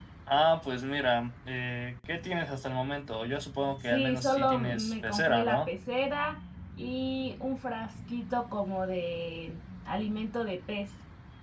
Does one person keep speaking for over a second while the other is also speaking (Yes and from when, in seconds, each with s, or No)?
Yes, from 3.9 s